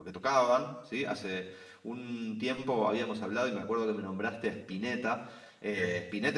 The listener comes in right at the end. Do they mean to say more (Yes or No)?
No